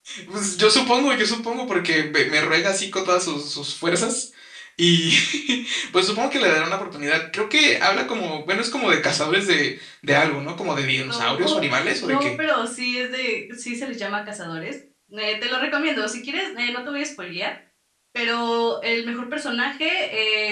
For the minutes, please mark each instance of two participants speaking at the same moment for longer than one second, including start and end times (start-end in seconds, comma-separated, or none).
11.1-12.3